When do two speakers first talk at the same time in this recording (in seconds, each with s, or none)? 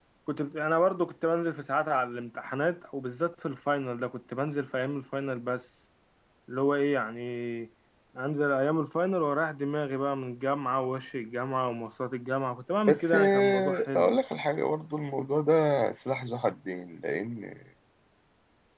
12.9 s